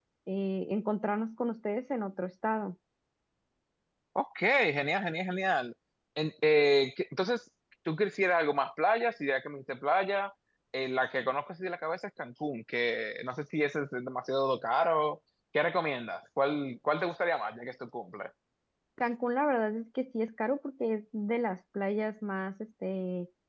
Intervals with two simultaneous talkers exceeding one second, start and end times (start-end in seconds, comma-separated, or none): none